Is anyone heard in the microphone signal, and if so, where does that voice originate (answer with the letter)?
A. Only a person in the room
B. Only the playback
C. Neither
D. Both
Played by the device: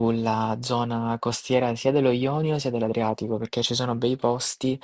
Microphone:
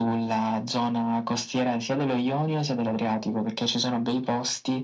B